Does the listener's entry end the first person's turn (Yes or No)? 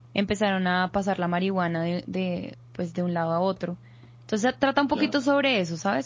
No